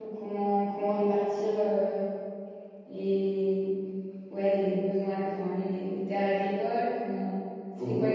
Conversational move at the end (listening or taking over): taking over